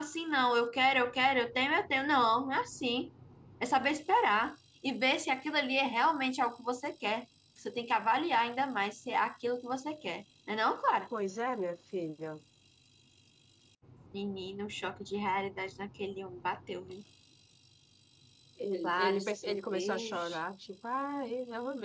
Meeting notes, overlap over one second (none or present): present